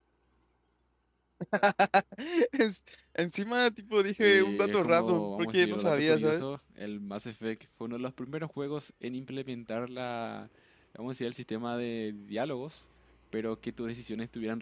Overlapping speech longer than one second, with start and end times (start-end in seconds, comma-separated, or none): 4.2-6.4